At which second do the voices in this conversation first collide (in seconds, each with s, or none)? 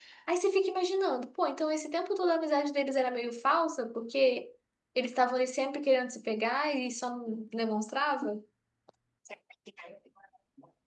none